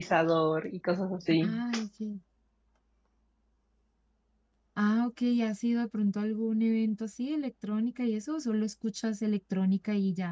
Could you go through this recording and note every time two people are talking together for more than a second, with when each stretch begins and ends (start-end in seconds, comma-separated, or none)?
none